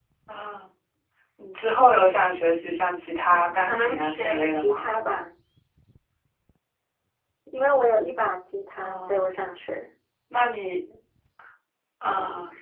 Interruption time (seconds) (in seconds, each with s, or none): 3.3 s